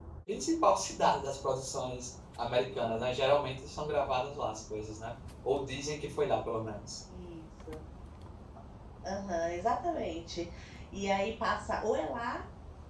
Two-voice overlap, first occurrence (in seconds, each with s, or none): none